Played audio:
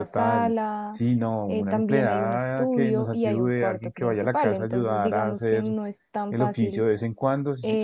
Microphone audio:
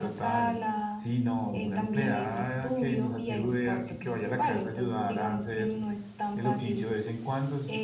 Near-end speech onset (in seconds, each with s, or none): none